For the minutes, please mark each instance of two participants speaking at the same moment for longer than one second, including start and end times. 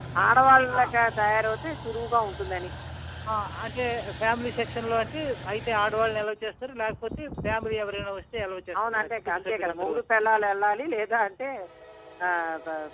8.8-10.3

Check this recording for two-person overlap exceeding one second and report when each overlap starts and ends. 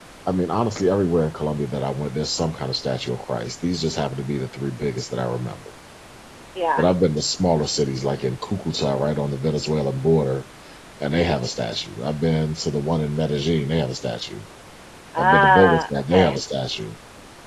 15.2-16.4

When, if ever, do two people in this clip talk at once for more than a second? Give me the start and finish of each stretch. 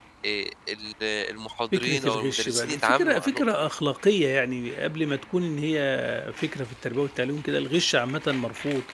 1.8-3.6

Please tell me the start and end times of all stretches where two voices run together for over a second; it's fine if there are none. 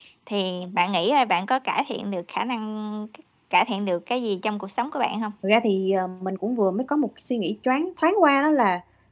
none

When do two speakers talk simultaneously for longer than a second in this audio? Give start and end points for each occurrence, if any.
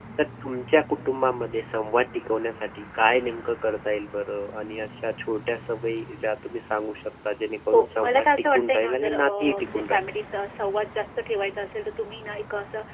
7.7-10.2

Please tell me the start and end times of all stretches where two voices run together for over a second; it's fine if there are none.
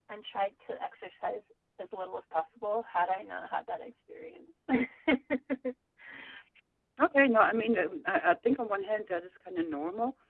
none

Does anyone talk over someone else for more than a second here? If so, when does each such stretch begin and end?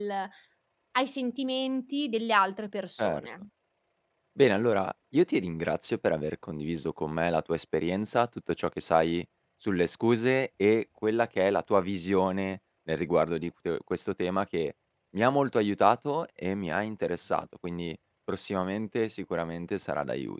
none

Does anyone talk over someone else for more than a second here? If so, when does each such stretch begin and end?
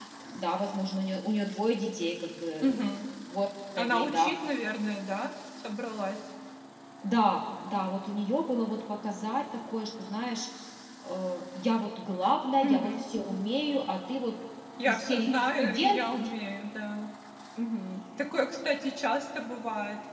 14.8-16.3

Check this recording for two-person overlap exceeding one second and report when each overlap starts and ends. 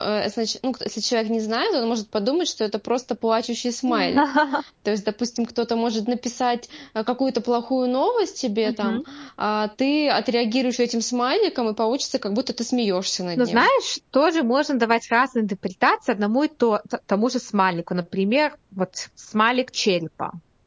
none

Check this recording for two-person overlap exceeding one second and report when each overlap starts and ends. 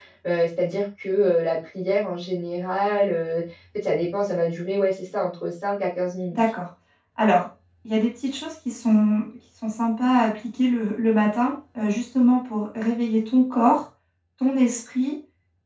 none

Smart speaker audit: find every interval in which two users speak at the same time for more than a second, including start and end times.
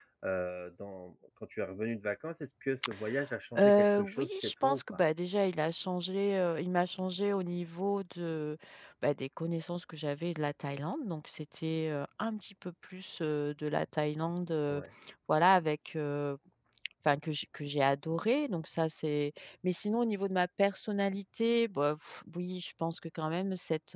3.6-4.8

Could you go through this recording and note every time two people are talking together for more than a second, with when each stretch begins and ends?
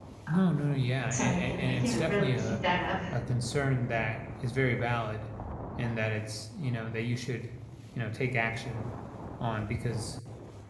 1.1-2.6

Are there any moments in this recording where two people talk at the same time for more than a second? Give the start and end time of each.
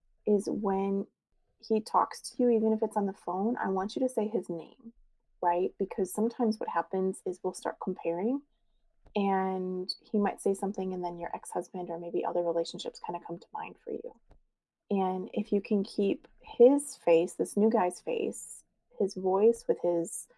none

